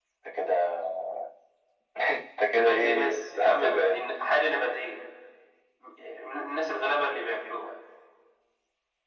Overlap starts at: 2.6 s

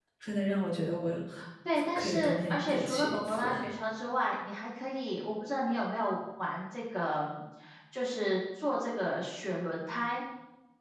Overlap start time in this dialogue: 2.0 s

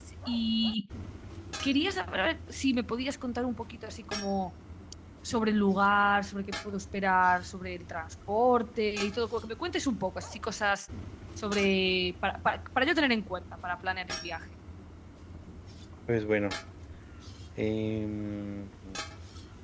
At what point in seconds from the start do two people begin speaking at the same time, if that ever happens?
none

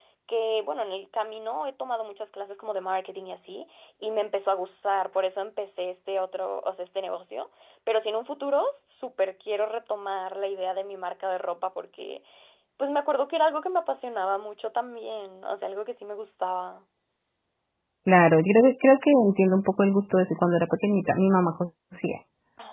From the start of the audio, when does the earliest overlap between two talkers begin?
none

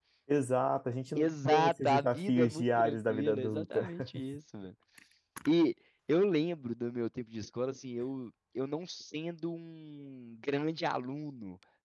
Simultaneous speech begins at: 1.1 s

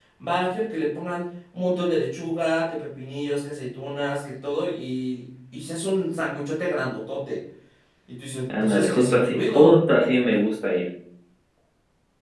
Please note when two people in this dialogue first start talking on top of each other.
8.5 s

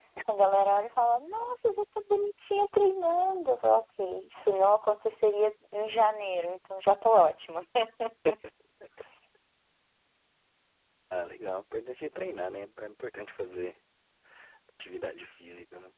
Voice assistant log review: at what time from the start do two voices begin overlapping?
none

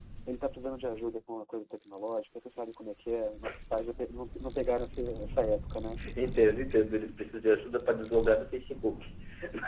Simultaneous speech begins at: none

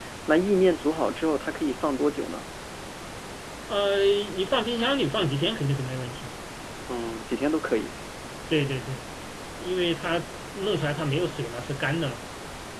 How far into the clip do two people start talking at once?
none

